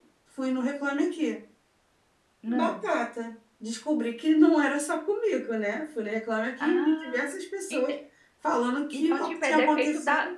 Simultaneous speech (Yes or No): Yes